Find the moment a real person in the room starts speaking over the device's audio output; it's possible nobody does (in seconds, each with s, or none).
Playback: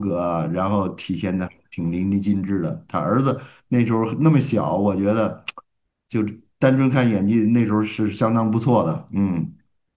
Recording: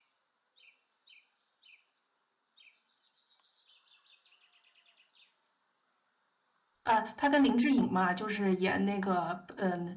6.8 s